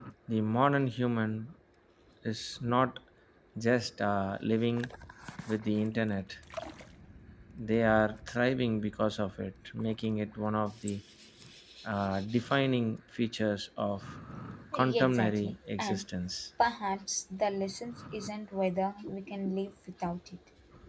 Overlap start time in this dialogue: 14.7 s

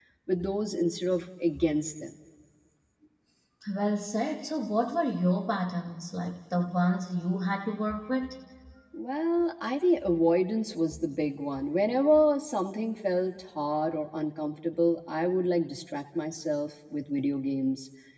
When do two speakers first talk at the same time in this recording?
none

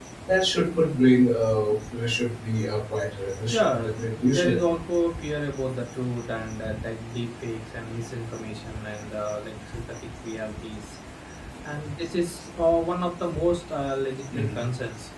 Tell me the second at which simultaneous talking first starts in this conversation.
3.5 s

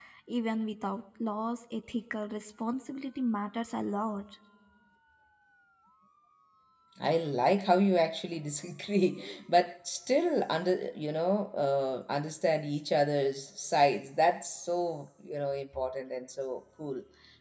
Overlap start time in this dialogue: none

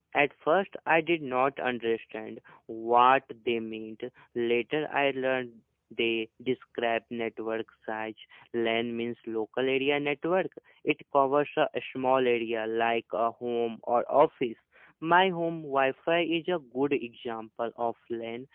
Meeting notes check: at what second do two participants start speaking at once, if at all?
none

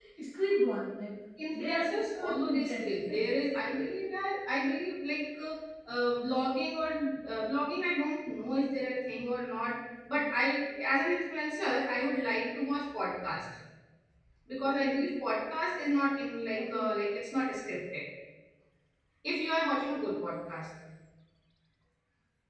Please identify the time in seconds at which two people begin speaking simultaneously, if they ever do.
1.5 s

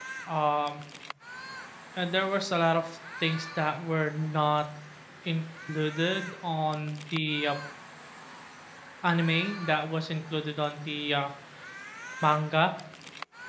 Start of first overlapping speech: none

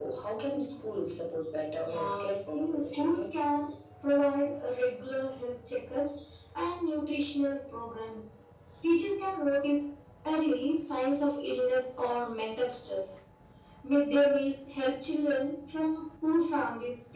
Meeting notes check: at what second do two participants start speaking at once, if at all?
1.8 s

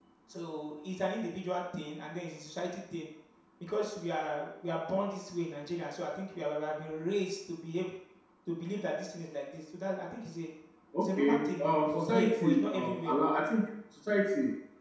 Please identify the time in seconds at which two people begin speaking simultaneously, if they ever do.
11.0 s

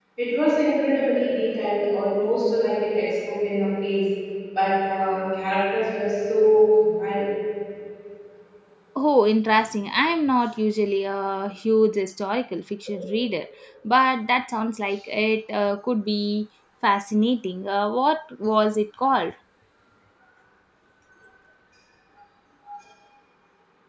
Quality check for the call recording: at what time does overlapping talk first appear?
none

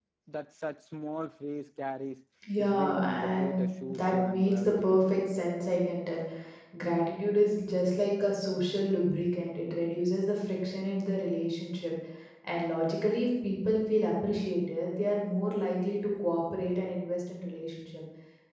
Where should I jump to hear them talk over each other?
2.4 s

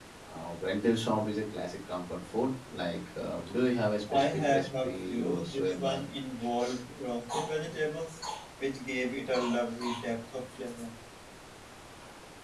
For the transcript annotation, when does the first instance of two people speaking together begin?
4.1 s

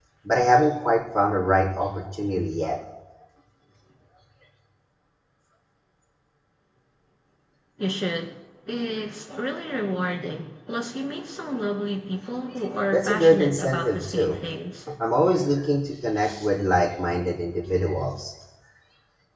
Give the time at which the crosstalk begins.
12.9 s

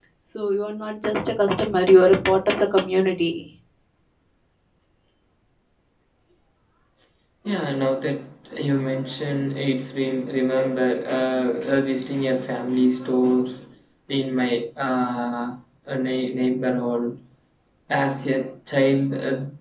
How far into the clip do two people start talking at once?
none

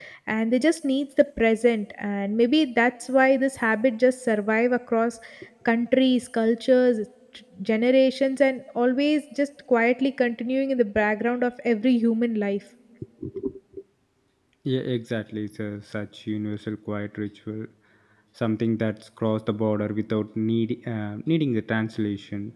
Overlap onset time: none

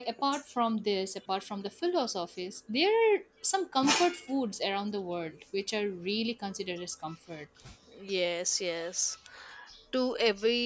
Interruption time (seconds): none

